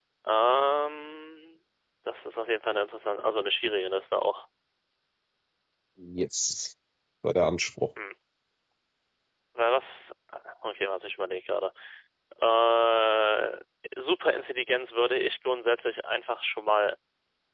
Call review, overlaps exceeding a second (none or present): none